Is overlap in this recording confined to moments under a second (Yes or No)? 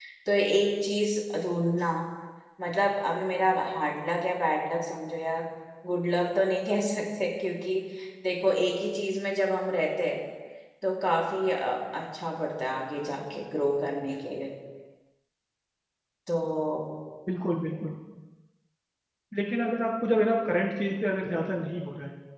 Yes